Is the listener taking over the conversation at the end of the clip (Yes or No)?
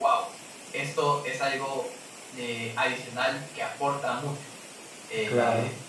No